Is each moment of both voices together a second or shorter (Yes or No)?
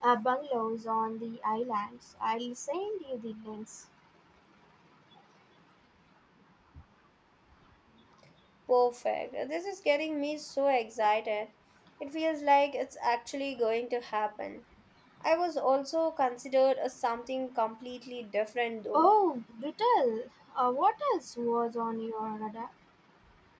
Yes